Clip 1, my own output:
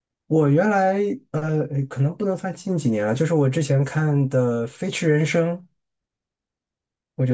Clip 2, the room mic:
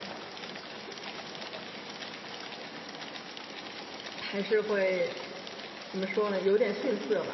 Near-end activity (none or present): present